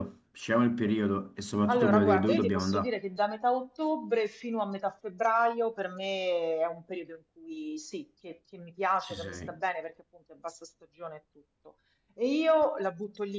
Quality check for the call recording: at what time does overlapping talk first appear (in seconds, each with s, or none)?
1.7 s